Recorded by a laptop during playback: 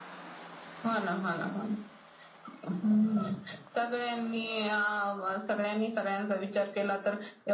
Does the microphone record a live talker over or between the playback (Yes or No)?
No